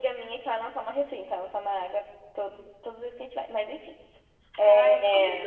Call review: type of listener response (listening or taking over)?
taking over